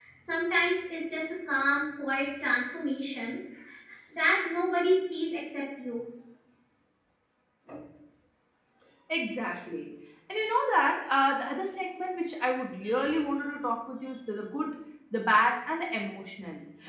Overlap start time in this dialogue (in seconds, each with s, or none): none